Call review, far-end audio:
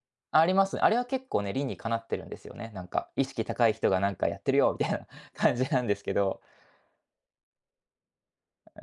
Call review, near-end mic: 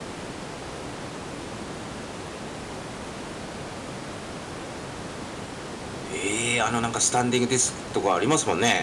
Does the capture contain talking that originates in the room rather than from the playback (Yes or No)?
Yes